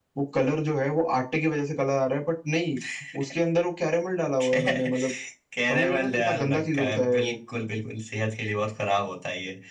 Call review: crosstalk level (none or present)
present